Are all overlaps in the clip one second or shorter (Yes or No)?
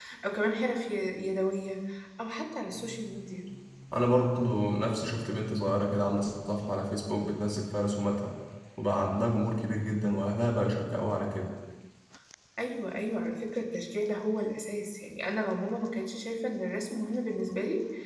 Yes